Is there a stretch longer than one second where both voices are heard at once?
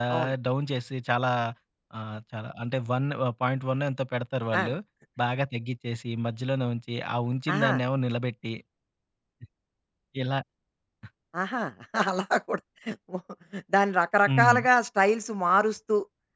No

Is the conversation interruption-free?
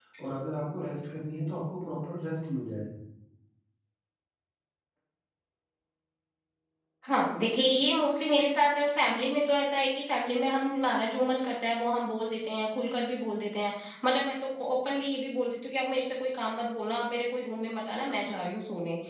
Yes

